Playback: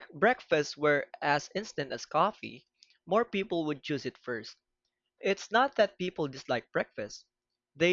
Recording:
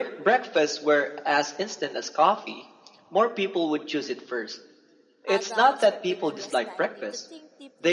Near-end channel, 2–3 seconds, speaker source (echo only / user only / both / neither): echo only